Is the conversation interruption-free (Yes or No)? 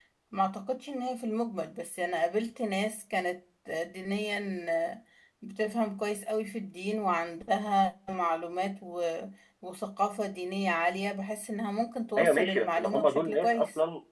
No